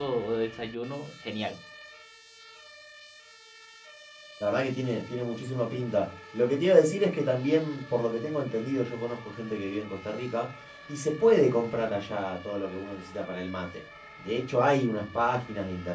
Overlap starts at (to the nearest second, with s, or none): none